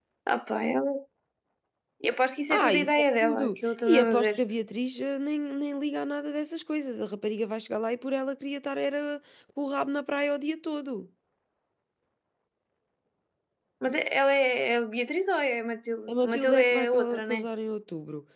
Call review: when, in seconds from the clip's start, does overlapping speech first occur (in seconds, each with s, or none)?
2.5 s